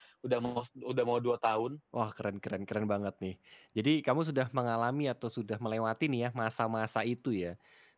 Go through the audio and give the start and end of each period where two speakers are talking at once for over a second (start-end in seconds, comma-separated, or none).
none